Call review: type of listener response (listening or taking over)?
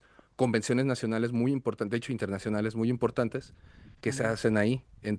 listening